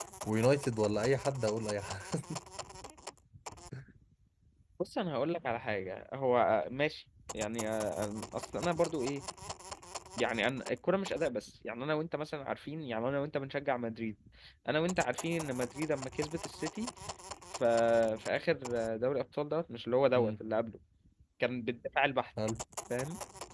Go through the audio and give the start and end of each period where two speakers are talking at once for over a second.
none

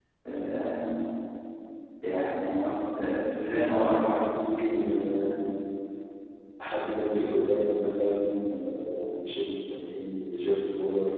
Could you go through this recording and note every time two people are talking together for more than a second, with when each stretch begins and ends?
none

